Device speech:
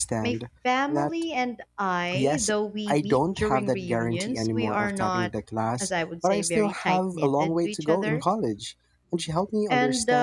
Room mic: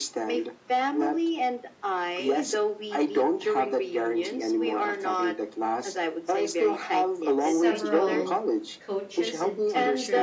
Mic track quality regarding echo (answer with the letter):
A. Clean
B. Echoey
B